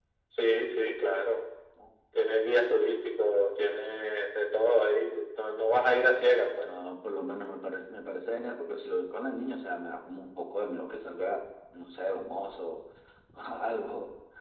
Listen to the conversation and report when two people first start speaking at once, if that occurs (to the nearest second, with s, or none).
none